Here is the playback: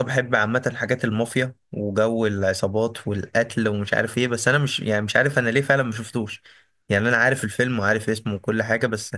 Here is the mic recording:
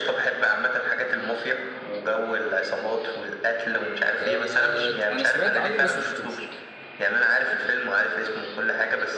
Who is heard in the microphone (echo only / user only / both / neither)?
both